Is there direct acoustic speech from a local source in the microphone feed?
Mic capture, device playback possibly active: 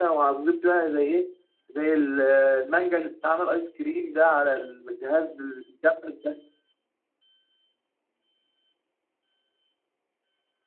No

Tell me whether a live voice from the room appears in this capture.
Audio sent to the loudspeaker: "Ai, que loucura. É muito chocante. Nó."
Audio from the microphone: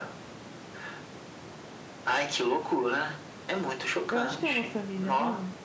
Yes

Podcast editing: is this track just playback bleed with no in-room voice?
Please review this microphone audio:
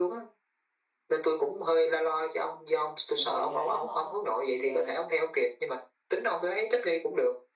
No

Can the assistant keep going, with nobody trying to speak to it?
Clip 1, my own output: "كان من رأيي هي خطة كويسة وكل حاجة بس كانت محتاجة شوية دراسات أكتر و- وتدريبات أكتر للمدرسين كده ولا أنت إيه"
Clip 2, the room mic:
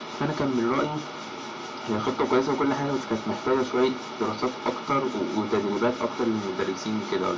Yes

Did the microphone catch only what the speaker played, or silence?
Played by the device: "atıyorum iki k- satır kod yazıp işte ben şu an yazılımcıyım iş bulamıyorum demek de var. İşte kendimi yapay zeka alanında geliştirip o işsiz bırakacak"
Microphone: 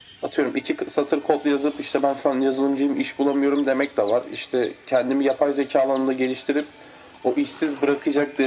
Yes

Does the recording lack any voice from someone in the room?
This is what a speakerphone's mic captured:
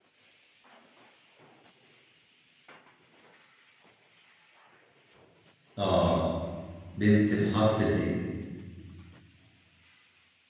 No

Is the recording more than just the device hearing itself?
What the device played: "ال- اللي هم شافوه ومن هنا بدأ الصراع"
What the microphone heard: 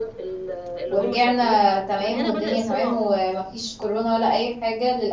Yes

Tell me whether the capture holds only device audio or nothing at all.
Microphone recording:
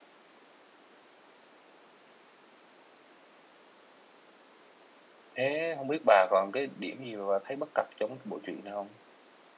No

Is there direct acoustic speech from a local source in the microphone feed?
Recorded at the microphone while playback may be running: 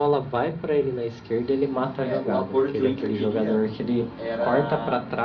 Yes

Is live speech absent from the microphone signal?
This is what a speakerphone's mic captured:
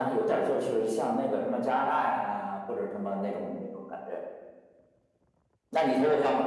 Yes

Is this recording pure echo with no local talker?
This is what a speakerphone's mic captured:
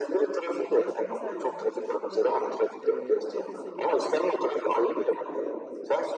No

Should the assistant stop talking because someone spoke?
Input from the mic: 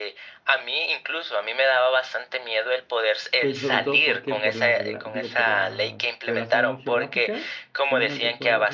Yes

